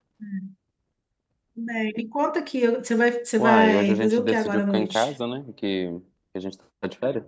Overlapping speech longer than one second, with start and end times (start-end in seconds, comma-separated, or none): 3.4-5.1